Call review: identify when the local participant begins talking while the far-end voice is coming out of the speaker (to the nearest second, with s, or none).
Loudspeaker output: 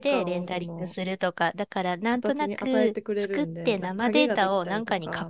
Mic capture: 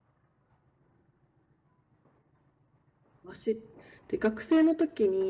3 s